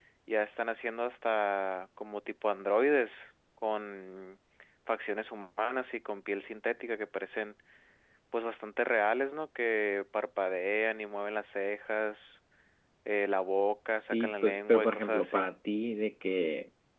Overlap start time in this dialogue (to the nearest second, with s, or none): 14 s